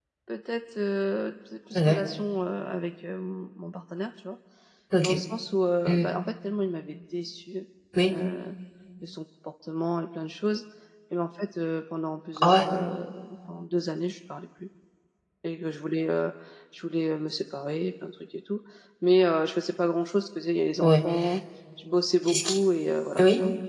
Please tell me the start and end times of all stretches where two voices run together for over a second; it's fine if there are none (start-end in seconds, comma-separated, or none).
none